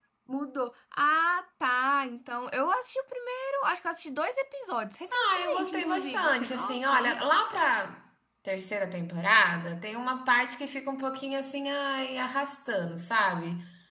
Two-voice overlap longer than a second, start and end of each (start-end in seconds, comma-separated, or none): 5.1-7.2